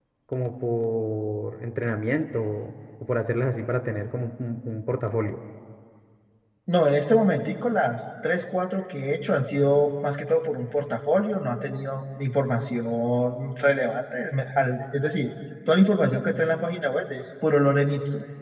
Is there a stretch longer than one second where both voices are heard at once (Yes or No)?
No